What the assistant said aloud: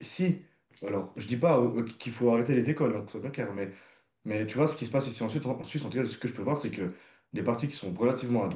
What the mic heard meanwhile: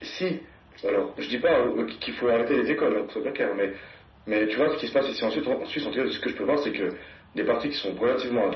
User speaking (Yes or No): No